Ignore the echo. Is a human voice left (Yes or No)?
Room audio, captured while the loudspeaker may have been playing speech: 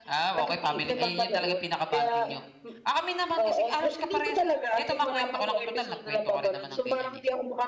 Yes